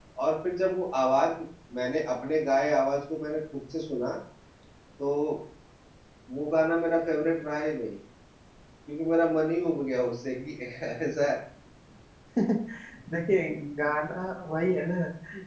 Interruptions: none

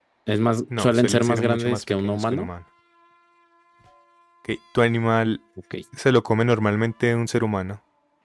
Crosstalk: present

